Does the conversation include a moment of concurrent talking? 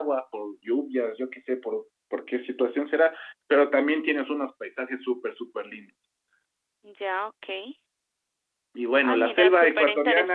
Yes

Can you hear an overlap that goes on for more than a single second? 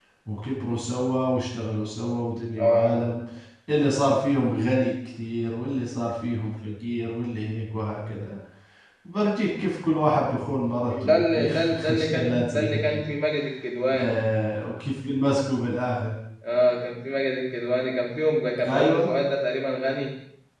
Yes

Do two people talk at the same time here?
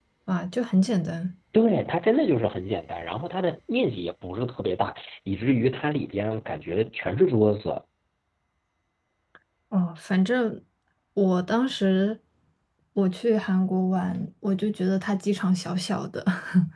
No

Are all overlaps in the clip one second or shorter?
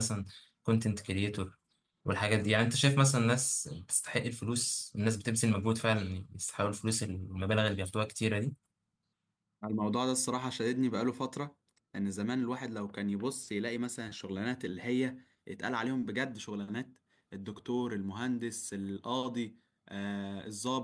Yes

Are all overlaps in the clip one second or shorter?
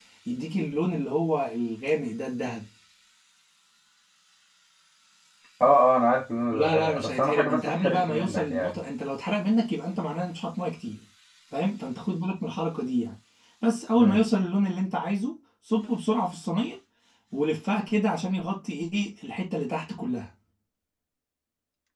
No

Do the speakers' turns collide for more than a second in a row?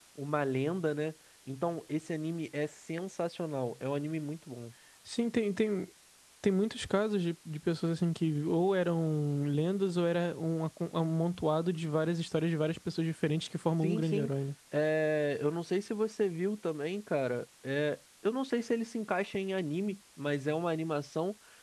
No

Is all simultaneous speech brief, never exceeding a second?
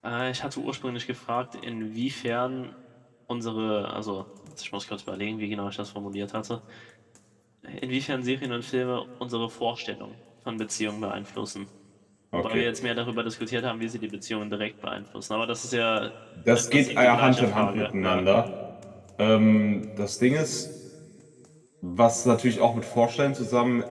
No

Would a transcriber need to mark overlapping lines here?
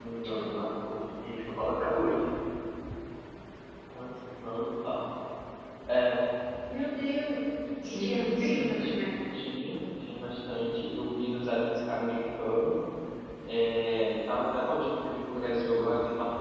Yes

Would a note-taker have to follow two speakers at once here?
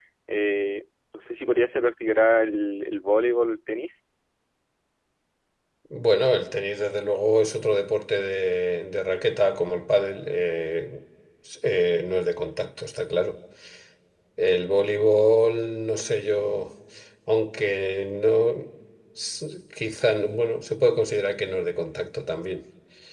No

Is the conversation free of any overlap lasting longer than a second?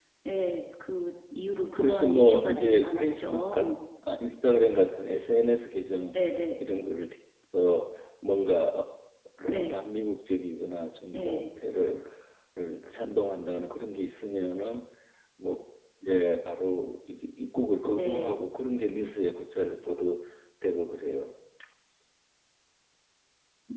No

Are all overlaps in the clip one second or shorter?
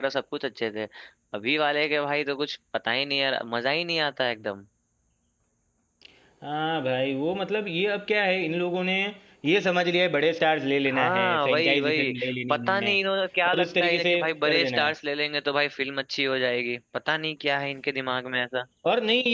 No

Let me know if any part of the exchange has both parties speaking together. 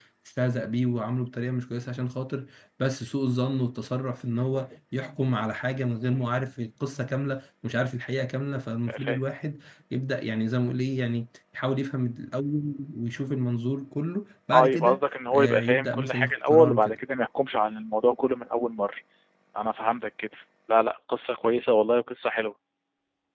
Yes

